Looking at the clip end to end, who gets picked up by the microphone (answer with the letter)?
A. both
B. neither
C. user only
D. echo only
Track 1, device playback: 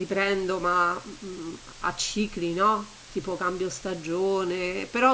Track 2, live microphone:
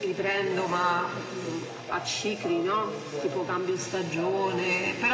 A